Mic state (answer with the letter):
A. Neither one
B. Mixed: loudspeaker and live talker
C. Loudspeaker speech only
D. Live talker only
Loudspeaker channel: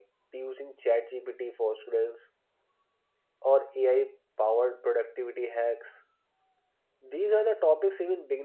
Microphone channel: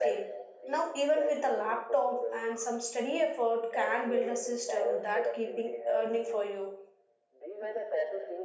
B